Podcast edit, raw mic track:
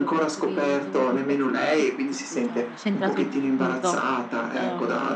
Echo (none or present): present